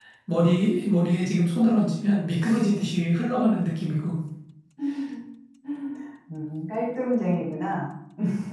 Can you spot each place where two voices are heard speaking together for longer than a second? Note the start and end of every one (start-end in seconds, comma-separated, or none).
none